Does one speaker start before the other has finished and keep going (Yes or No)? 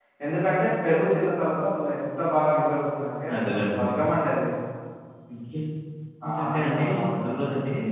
Yes